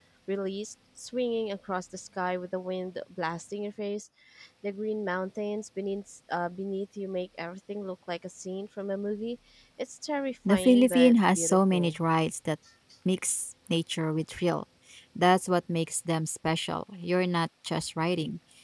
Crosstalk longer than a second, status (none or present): present